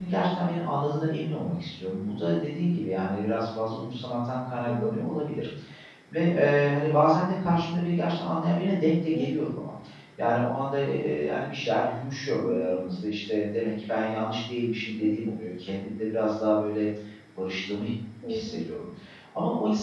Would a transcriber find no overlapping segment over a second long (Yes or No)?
Yes